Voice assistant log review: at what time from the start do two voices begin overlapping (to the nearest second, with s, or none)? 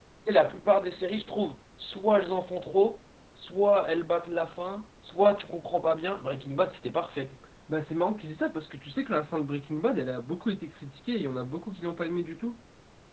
none